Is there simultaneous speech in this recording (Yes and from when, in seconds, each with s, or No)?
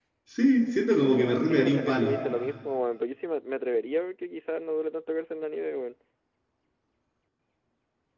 Yes, from 1.0 s